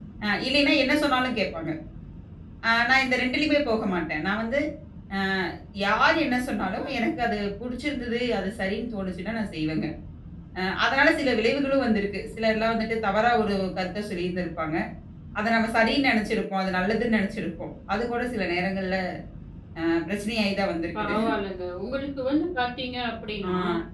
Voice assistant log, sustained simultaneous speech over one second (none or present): none